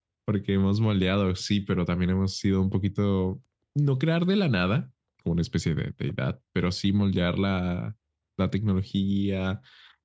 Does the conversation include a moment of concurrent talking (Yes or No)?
No